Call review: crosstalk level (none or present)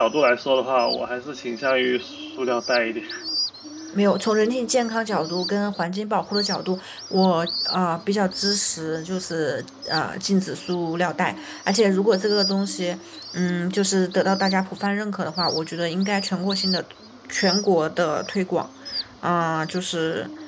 none